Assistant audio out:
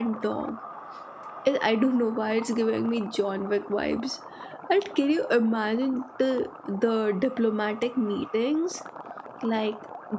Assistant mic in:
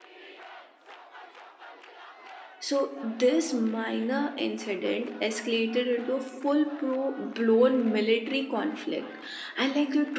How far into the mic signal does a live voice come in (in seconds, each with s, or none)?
2.6 s